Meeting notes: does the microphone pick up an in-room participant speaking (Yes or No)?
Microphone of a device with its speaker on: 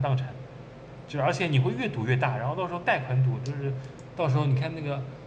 Yes